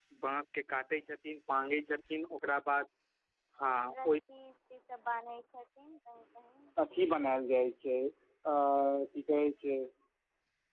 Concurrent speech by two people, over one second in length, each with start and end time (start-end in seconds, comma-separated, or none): none